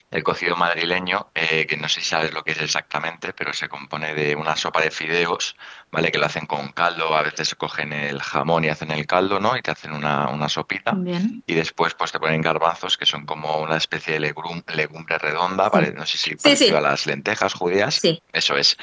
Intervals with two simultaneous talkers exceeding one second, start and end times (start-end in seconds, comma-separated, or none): none